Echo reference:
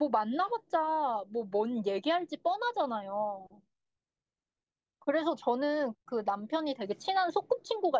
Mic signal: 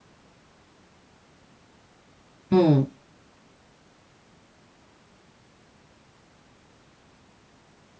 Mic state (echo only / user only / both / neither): user only